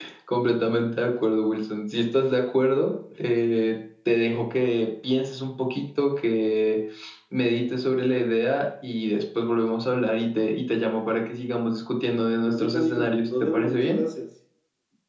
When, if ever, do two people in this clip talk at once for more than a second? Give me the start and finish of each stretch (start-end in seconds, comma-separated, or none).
12.5-14.0